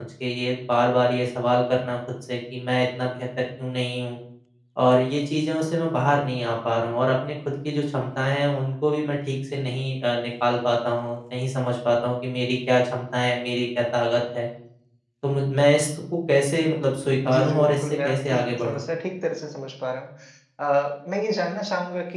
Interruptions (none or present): present